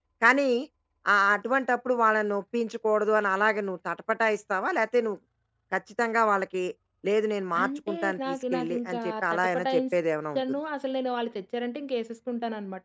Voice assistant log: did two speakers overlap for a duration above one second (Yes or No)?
Yes